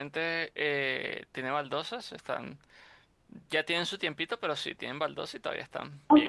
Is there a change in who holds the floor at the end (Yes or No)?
Yes